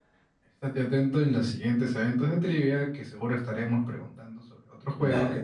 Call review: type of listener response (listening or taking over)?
taking over